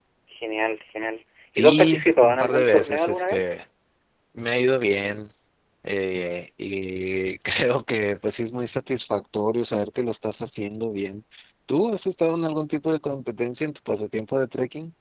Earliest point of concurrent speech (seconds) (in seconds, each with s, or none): 1.5 s